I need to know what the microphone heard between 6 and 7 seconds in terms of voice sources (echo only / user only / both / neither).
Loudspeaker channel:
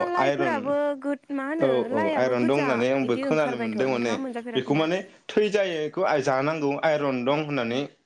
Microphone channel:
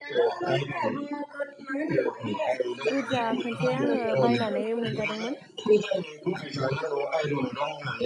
echo only